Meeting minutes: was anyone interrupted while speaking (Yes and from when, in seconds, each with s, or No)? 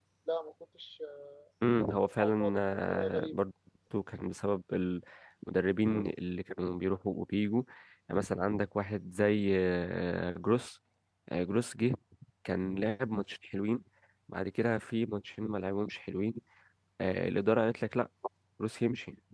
Yes, from 2.2 s